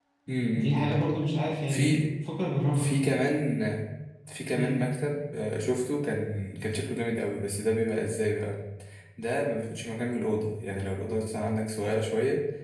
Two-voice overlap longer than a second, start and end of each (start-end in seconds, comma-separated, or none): none